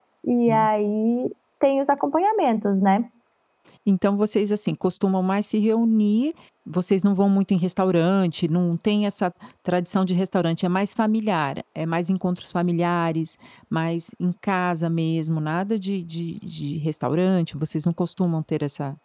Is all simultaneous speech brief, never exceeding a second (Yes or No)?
Yes